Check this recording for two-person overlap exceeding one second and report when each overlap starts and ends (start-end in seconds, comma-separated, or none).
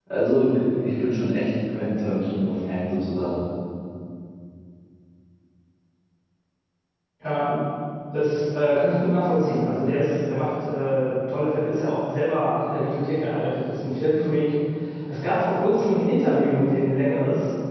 none